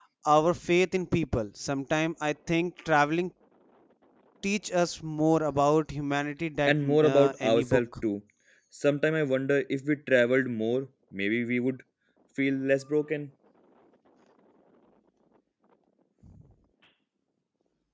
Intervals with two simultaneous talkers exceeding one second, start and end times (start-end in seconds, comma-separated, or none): 6.7-8.0